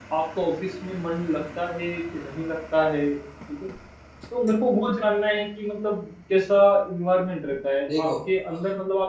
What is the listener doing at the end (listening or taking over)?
listening